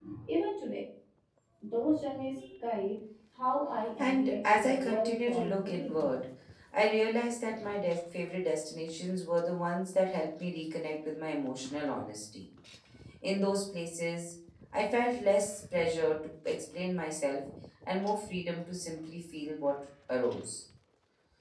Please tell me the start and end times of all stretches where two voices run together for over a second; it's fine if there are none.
4.0-6.0

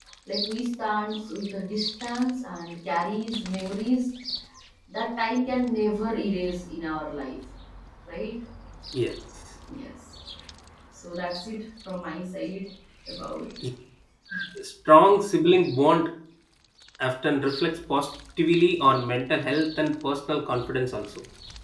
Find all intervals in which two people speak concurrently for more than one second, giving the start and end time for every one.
none

